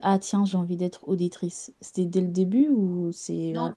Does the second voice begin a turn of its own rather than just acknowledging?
Yes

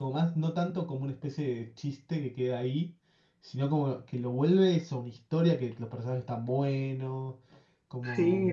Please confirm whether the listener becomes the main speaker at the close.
Yes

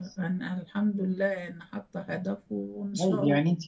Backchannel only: No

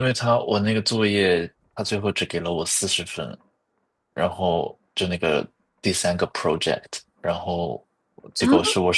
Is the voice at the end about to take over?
No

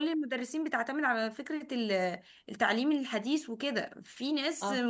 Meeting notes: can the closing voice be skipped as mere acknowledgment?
Yes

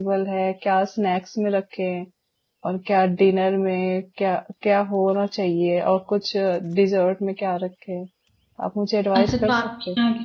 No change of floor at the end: No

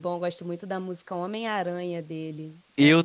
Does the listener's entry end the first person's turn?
Yes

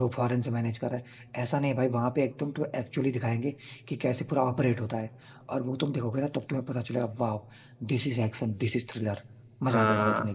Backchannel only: No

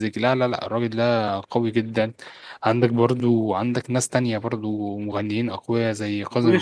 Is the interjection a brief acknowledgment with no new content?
No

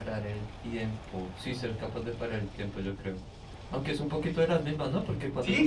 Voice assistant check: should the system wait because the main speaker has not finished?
No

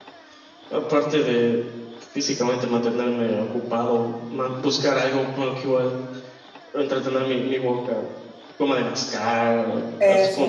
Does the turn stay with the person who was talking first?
Yes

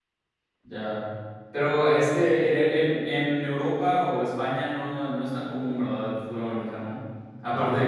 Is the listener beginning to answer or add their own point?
No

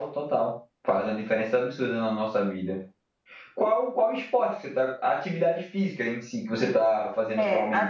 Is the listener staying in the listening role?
No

